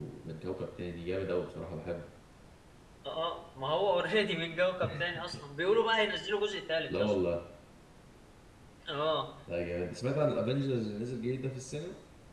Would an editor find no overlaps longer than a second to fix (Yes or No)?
Yes